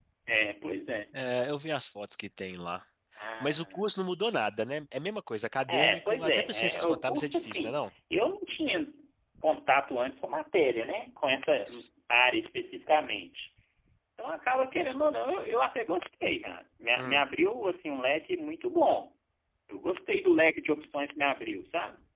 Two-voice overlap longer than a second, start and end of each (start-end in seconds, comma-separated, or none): 5.7-7.9